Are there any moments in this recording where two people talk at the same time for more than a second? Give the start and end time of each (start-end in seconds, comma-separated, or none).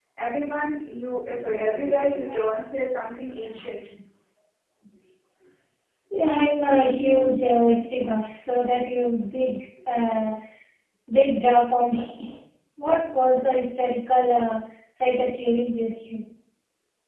6.7-8.1